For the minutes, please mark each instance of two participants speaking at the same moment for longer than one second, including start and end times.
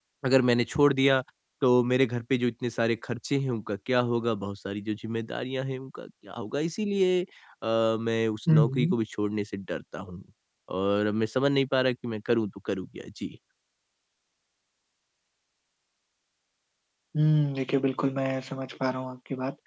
none

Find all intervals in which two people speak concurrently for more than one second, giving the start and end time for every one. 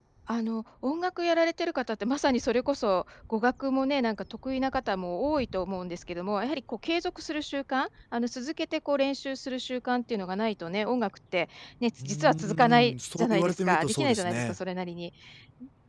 12.0-14.6

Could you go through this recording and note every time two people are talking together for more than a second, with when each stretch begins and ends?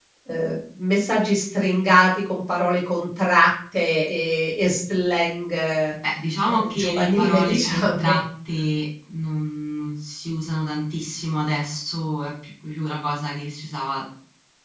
6.5-8.1

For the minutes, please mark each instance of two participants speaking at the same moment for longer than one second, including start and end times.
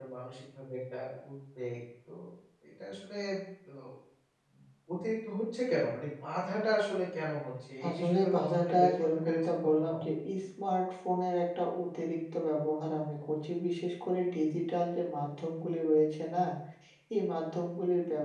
7.8-9.9

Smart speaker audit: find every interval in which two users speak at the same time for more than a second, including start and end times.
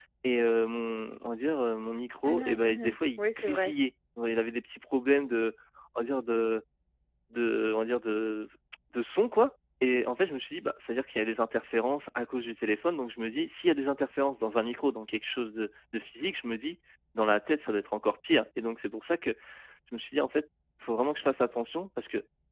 2.2-3.7

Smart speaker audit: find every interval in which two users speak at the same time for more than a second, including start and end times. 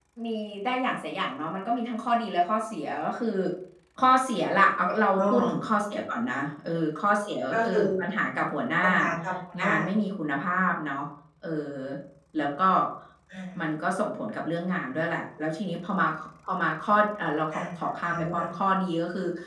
none

